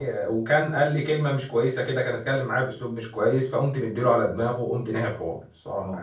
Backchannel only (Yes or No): No